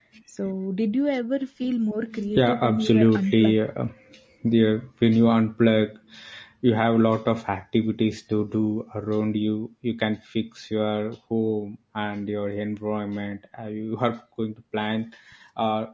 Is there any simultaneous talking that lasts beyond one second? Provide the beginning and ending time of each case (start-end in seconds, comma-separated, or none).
2.3-3.5